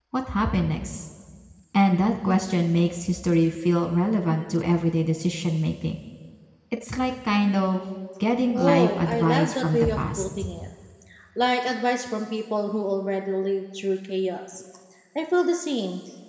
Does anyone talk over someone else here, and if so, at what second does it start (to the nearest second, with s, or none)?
8 s